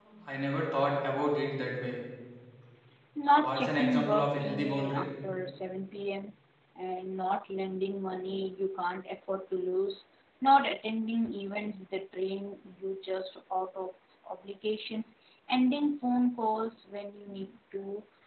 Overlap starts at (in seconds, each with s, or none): 3.4 s